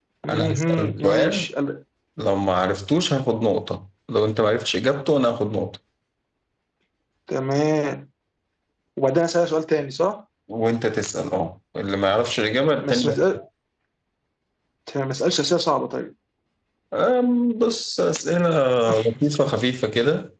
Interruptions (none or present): present